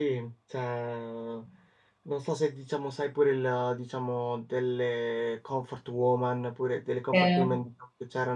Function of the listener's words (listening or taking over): listening